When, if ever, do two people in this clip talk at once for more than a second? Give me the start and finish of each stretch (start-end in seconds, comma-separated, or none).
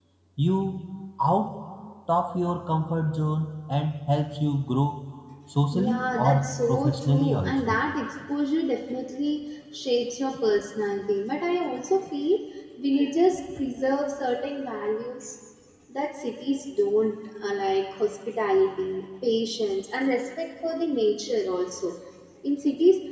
5.7-7.8